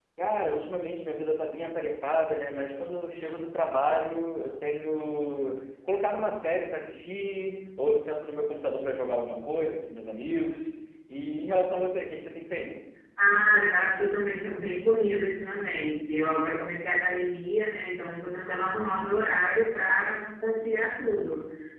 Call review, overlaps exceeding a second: none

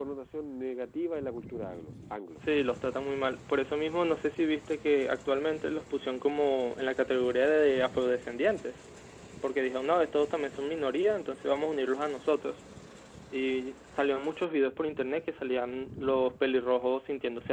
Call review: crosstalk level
none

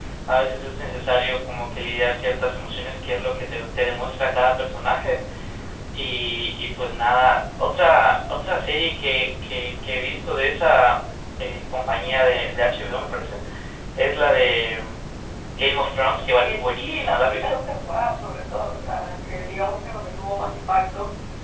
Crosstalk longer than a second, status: present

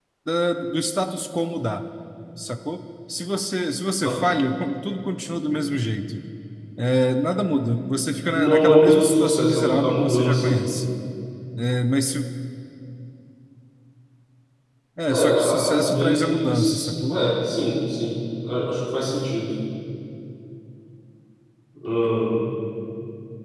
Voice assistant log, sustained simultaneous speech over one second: present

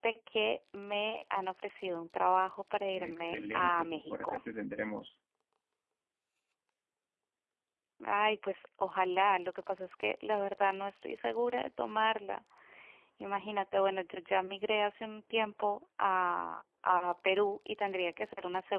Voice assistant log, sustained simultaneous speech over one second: present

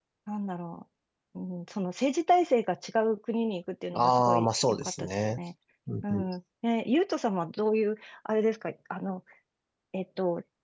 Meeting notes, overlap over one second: present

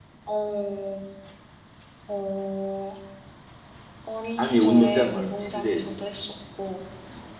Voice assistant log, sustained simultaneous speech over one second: present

